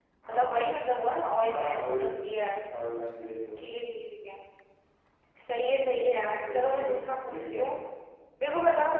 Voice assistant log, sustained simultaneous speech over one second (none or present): present